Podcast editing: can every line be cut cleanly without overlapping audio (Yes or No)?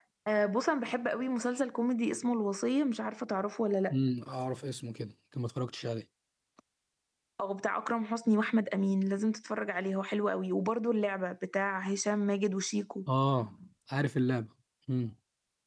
Yes